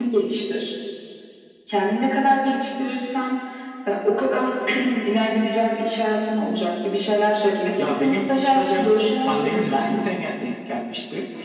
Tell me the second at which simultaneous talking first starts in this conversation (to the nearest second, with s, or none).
8 s